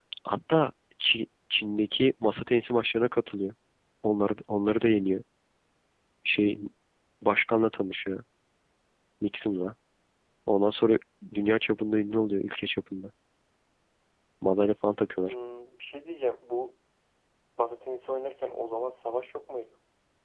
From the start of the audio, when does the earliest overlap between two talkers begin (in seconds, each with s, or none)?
none